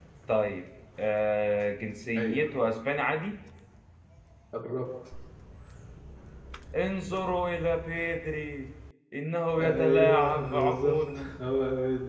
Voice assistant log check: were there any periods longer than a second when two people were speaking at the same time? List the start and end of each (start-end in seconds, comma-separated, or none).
9.6-11.3